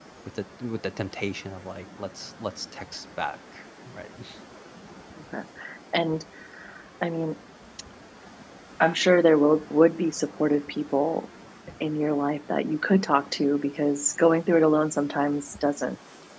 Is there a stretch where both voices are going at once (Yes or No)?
No